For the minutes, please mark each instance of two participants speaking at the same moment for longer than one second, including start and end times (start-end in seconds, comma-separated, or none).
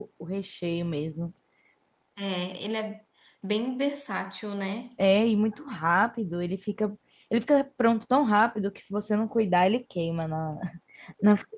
none